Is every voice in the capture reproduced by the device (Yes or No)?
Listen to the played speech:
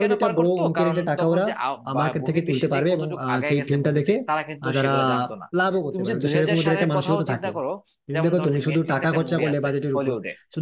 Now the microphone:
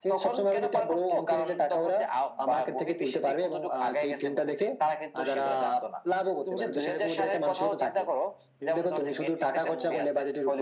Yes